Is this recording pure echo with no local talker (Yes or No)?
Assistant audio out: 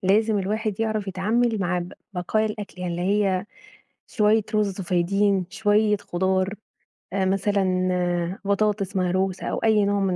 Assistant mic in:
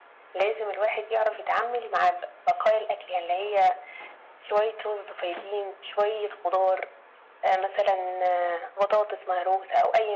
Yes